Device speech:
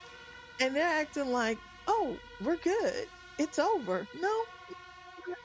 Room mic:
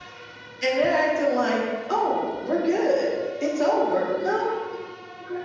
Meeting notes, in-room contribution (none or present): none